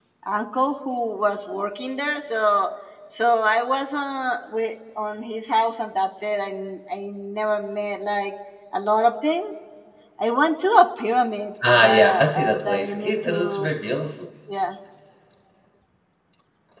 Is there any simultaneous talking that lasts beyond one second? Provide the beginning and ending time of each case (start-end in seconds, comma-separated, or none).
11.7-13.7